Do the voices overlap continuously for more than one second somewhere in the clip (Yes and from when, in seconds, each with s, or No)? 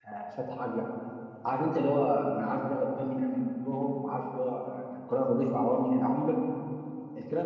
No